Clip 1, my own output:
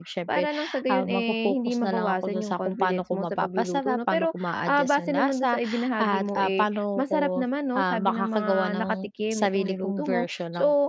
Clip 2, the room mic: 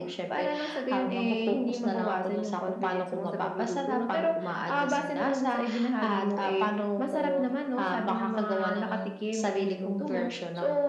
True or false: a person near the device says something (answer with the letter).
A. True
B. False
B